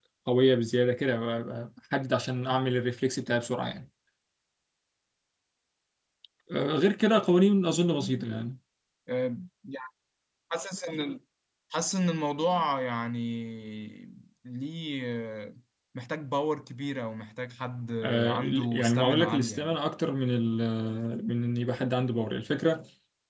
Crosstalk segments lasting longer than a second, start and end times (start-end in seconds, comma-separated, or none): 18.0-19.8